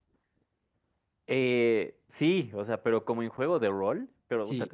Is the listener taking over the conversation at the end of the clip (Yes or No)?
No